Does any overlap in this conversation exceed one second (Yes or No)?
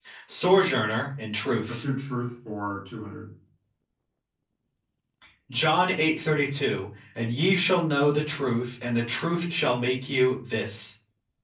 No